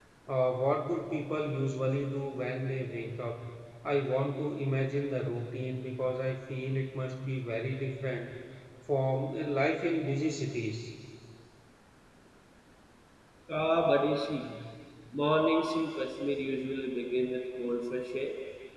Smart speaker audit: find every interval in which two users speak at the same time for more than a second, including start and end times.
none

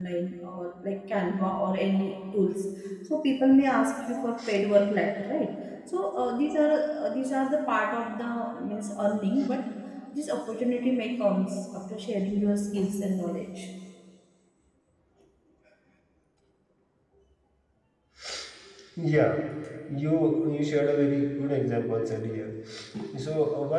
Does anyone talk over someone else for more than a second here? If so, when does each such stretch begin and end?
none

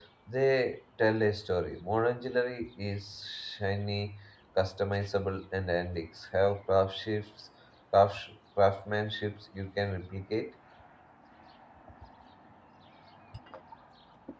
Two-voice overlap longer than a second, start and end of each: none

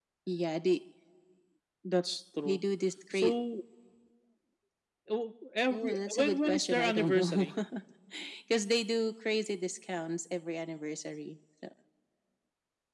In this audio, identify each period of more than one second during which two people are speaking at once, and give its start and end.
5.7-7.5

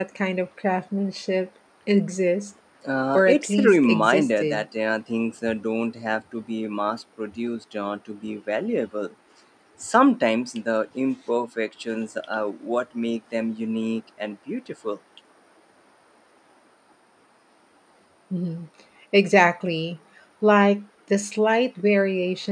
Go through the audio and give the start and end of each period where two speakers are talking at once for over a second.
3.1-4.6

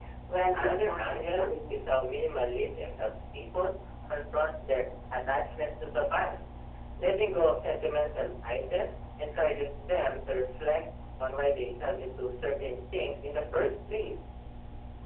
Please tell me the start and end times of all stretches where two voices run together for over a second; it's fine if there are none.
0.6-1.9

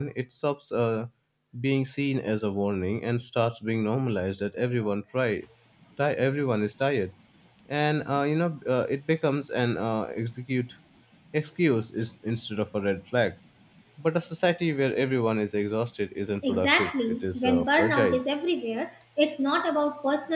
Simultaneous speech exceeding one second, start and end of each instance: 16.4-18.2

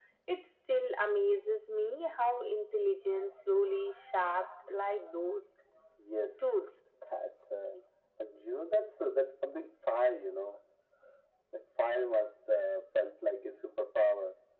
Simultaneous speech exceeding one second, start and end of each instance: none

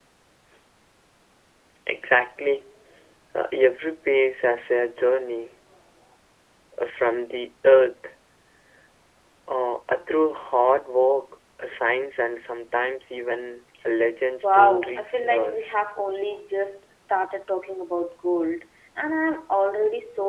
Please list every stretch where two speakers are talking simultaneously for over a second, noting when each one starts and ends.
14.4-15.8

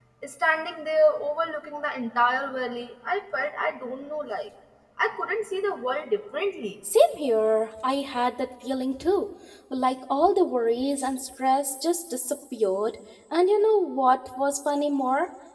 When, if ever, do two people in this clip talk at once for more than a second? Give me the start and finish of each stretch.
none

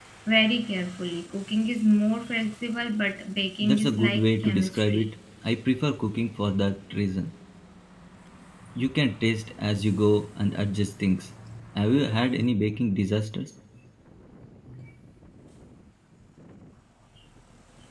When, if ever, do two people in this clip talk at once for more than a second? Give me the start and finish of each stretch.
3.6-5.1

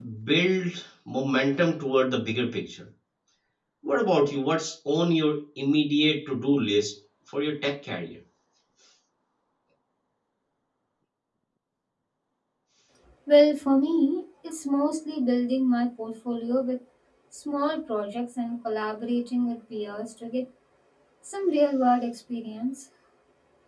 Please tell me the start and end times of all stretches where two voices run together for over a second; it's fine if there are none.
none

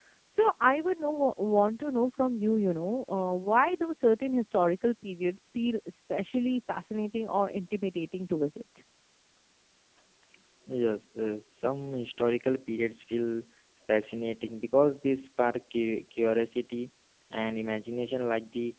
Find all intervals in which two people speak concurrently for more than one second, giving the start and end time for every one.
none

